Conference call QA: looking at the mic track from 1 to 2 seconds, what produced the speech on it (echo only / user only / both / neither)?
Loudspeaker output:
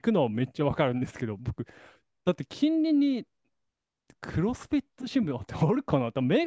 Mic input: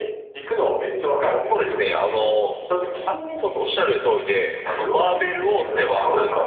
both